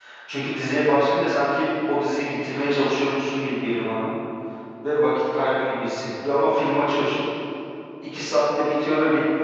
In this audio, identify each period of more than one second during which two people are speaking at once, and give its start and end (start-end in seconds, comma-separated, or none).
none